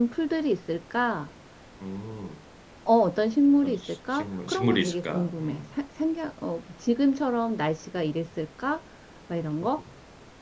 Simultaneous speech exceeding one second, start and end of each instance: 3.6-5.6

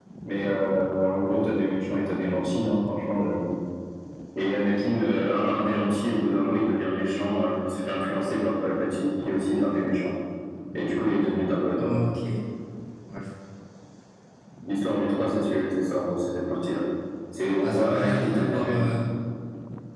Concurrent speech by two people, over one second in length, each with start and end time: 17.6-18.9

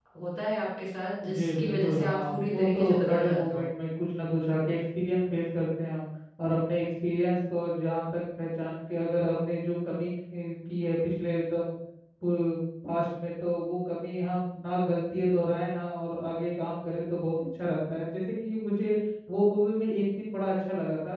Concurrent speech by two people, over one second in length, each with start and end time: 1.3-3.6

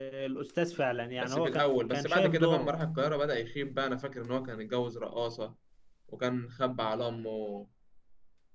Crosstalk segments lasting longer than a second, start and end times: 1.2-2.7

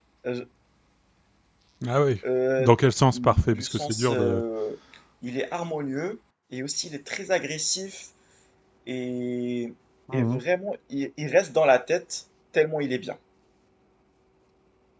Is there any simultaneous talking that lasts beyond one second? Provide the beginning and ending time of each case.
3.1-4.4

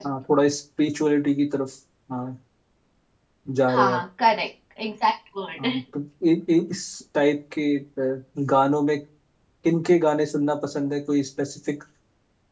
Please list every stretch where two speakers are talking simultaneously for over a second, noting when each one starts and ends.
none

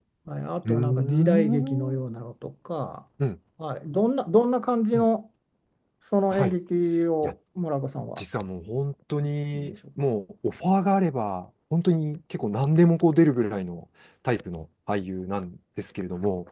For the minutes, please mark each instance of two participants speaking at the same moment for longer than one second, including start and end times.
0.7-2.0

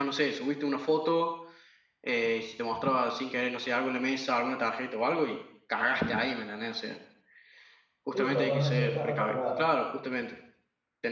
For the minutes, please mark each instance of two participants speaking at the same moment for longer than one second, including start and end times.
8.1-9.7

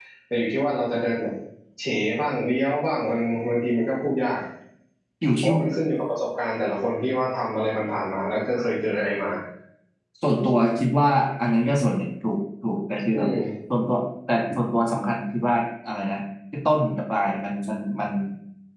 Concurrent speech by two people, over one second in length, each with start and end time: none

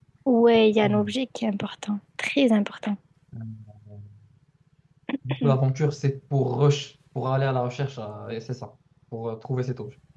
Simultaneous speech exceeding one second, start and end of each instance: none

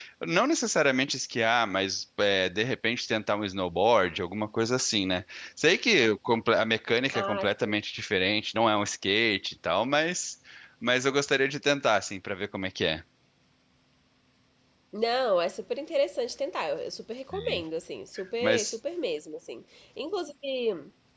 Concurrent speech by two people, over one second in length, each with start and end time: none

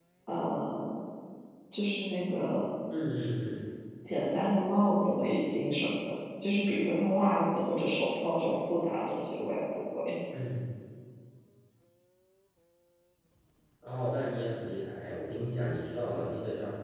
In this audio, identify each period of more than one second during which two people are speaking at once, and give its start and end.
none

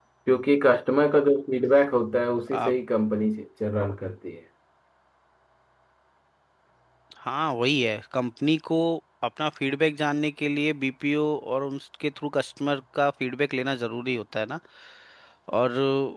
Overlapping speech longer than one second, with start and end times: none

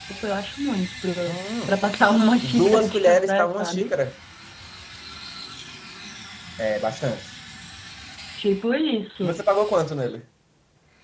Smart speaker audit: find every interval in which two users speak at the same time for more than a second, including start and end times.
2.4-3.9

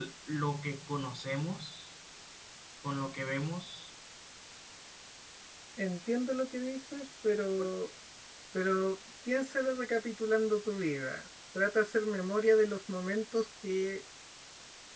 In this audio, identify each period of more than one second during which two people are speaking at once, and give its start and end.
none

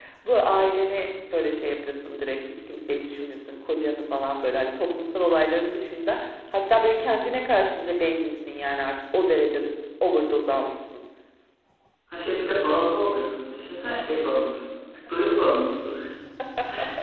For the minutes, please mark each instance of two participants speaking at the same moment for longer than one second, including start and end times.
none

